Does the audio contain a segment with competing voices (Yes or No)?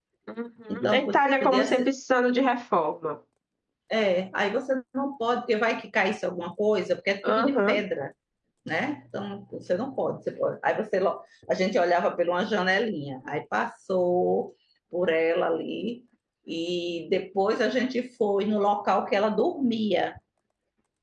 Yes